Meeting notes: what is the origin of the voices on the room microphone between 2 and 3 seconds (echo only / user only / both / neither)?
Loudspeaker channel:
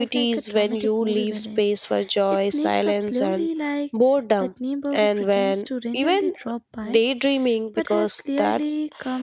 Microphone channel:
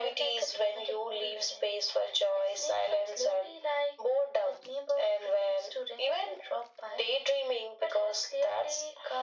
echo only